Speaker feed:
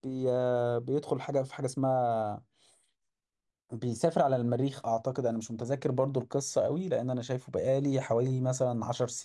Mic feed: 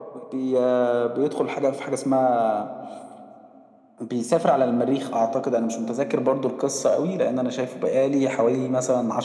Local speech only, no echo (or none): none